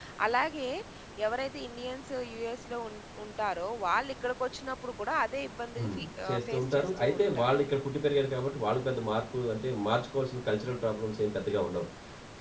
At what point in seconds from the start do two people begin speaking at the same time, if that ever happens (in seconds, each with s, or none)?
5.8 s